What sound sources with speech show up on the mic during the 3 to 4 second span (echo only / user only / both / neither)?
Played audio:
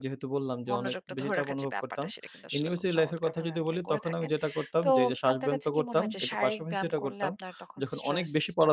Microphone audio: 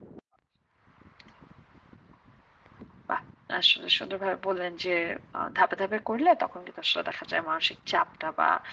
user only